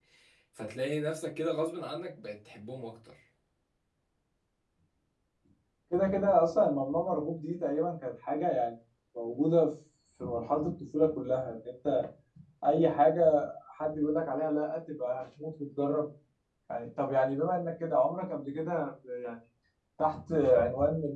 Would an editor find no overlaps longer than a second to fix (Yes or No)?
Yes